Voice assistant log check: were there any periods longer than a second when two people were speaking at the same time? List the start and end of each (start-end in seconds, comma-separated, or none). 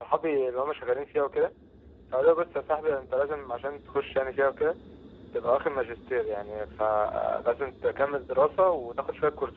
none